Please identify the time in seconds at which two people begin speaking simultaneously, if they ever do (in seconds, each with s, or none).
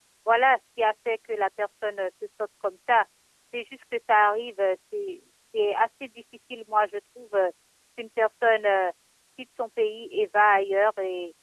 none